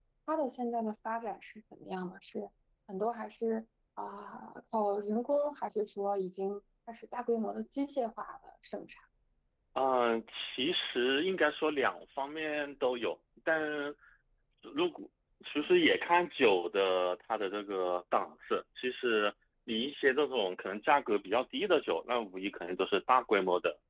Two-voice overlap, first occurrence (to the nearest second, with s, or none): none